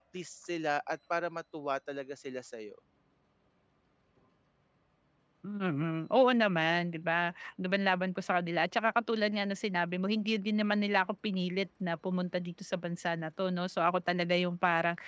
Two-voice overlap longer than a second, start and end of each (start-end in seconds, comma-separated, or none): none